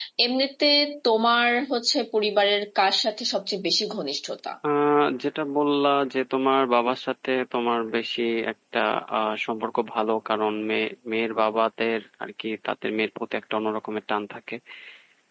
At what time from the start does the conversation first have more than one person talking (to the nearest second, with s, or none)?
none